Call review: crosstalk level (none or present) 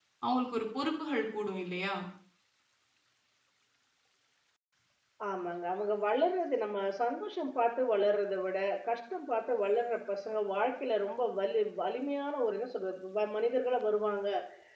none